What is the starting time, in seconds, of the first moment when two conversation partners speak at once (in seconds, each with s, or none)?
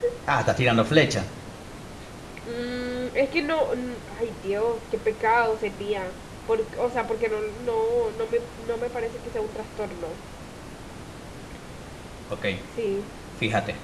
none